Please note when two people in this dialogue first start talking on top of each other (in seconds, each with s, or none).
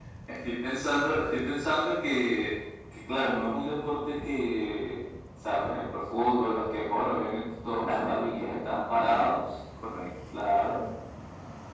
7.9 s